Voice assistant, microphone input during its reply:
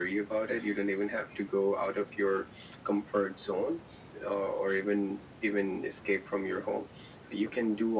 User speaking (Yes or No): No